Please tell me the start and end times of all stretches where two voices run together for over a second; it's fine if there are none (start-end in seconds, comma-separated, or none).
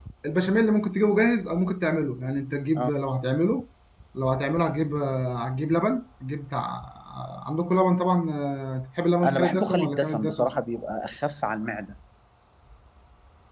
9.2-10.5